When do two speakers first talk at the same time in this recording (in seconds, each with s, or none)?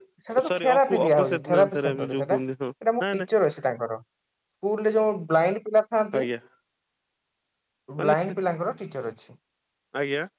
0.5 s